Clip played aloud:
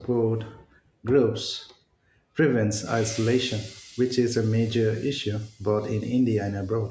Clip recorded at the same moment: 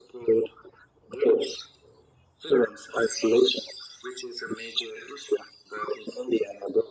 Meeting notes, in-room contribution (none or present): none